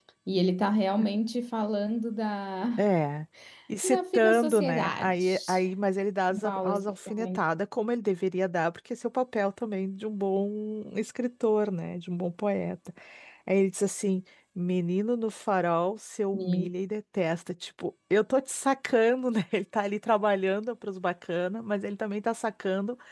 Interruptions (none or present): present